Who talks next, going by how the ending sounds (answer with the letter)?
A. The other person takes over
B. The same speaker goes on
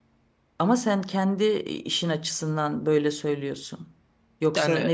B